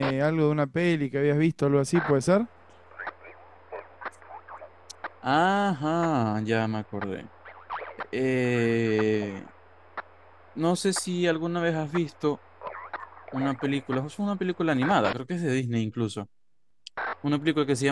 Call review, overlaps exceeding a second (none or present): none